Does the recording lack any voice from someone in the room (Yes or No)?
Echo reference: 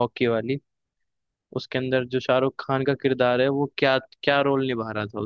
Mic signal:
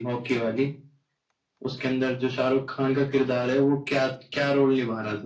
Yes